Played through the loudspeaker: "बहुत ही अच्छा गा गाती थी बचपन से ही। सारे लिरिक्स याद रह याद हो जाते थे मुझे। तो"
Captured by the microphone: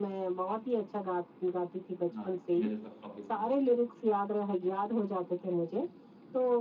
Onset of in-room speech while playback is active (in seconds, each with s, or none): 2.1 s